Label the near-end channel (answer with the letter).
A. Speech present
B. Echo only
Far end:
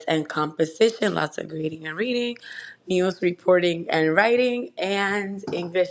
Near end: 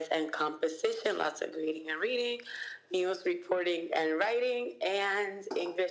B